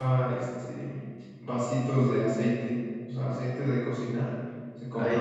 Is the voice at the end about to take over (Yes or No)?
No